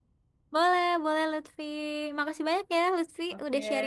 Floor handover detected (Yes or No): Yes